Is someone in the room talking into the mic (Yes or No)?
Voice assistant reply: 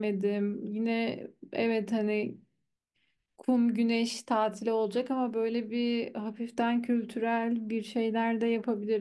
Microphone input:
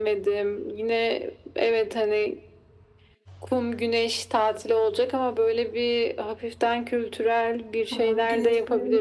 Yes